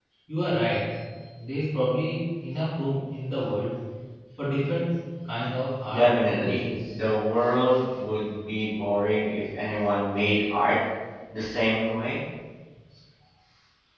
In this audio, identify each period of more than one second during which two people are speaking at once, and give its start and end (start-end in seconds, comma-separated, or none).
5.9-7.1